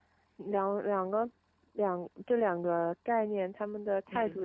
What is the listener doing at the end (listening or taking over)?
listening